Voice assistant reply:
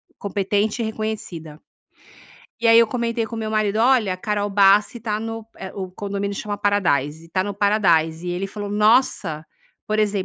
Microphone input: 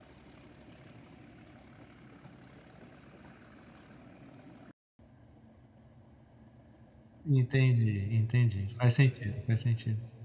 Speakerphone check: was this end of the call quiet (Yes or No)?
No